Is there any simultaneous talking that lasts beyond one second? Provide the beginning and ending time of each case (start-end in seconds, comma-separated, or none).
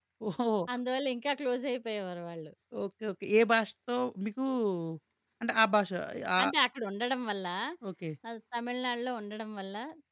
none